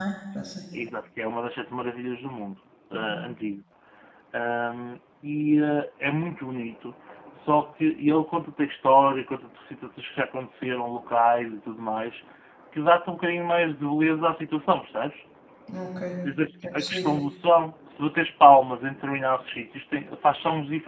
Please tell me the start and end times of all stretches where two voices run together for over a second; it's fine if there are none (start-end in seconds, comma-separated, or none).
none